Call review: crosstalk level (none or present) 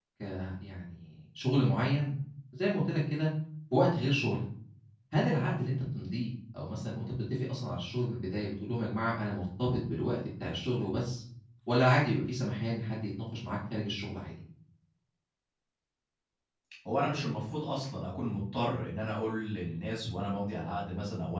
none